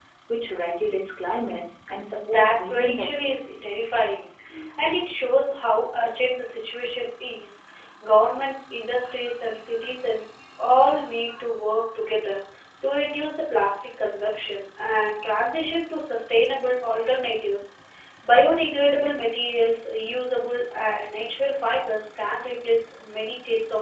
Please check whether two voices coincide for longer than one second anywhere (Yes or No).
Yes